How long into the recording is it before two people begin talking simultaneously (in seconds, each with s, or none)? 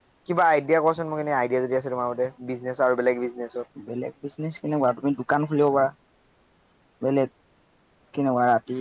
none